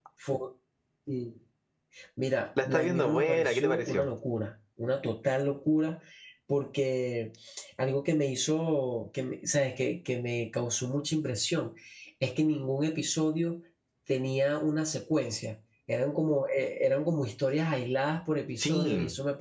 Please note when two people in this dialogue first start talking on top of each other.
2.6 s

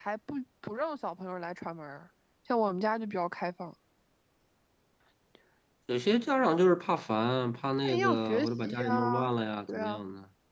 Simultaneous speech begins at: 7.8 s

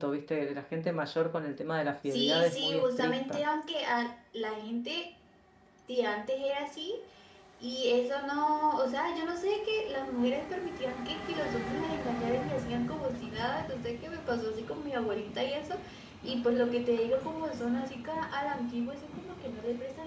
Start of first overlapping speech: 2.1 s

